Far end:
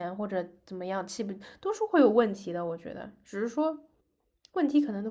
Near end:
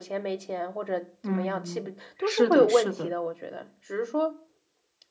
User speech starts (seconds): 1 s

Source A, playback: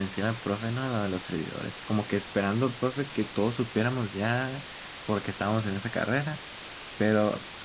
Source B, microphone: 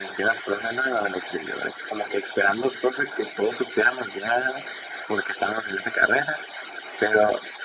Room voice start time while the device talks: none

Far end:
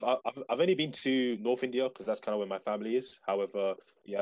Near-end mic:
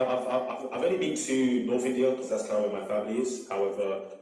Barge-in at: none

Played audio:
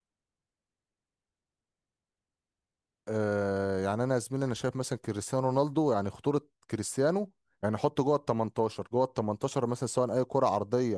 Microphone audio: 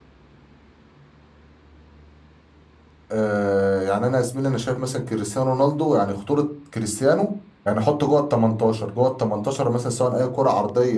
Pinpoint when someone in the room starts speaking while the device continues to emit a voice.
none

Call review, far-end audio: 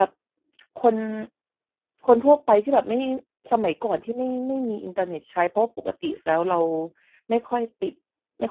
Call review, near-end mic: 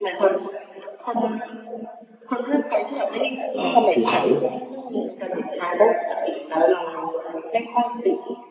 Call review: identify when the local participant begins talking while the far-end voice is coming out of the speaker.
4 s

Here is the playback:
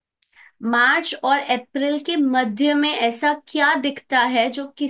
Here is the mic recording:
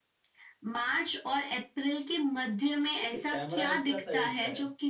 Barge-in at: 3 s

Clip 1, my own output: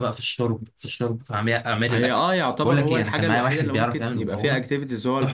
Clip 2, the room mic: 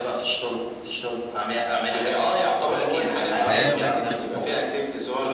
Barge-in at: 3 s

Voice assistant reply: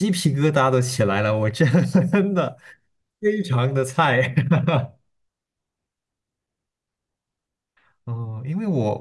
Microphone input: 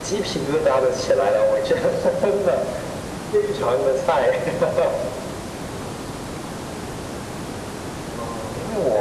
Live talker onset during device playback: none

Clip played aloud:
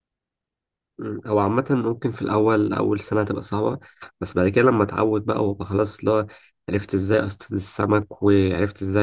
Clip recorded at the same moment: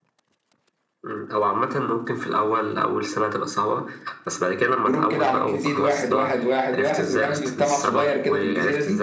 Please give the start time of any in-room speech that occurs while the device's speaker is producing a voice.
5 s

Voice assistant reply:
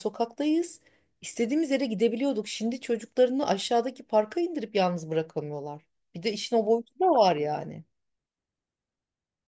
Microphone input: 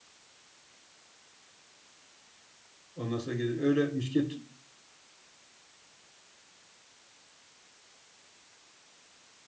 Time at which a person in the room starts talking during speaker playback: 3 s

